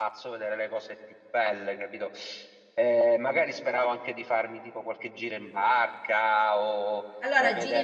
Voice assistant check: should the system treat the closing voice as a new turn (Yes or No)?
Yes